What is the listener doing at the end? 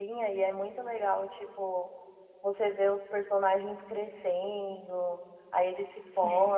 listening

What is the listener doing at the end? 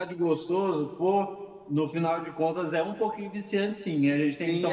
taking over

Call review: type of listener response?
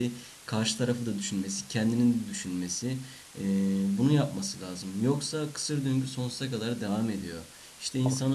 listening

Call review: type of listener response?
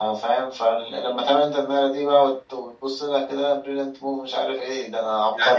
taking over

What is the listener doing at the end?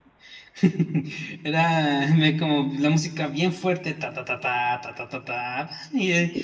taking over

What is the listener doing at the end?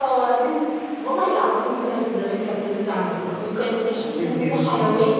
listening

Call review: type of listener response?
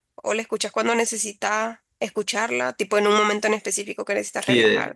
taking over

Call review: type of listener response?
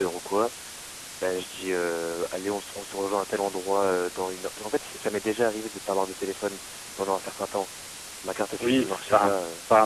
taking over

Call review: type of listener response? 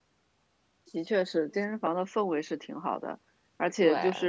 listening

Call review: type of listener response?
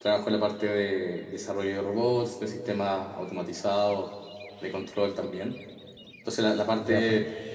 listening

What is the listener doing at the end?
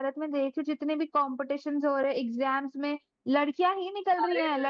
taking over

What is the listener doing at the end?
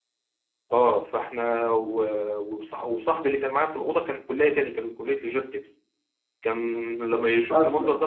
listening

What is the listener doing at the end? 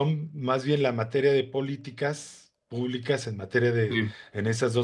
listening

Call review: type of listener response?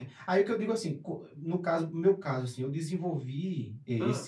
listening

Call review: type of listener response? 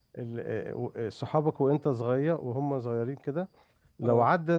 listening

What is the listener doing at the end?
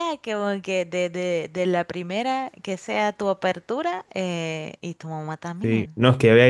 taking over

